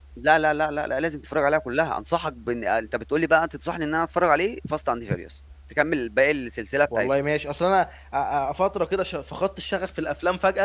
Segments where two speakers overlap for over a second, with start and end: none

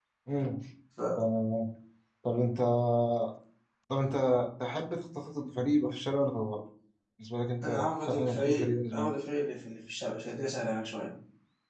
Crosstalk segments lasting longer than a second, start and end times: 7.6-9.1

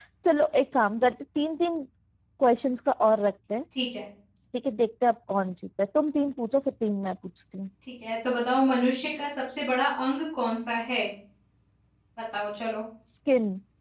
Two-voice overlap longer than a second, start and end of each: none

